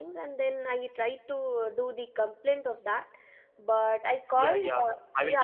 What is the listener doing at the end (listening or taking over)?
taking over